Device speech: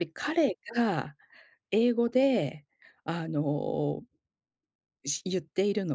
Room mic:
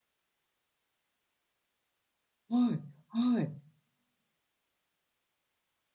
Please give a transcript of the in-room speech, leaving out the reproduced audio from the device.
はい、はい。

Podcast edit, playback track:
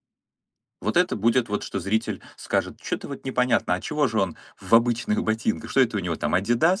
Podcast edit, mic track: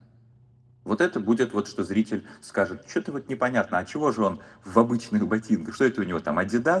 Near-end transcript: none

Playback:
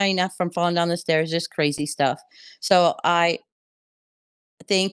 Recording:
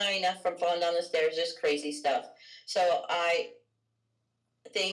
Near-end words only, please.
none

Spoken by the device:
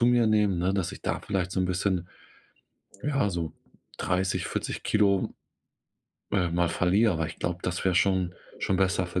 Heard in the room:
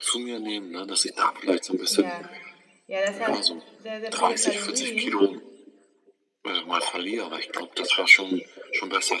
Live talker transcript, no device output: Ja. Ja, das hat sehr, sehr viele Kalorien.

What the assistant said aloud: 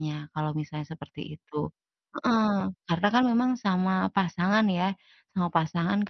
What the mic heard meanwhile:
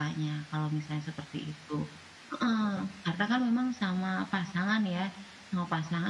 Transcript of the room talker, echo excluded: none

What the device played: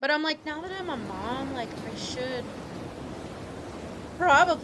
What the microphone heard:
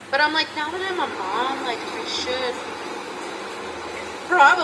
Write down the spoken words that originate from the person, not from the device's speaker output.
none

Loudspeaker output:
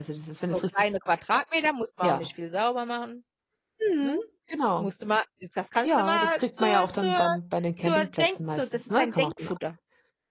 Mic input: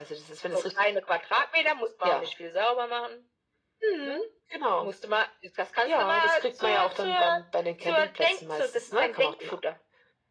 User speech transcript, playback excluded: none

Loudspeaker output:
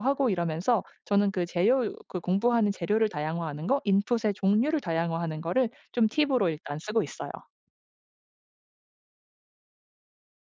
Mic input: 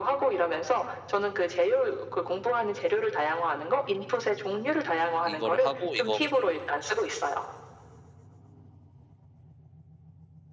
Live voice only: 이거를 하고 이거

